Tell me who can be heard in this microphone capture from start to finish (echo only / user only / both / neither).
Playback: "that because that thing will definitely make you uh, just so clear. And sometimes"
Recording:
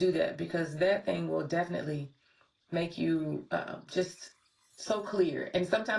echo only